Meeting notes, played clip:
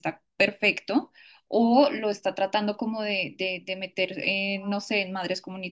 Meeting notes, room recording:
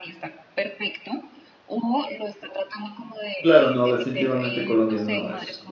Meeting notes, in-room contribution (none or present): present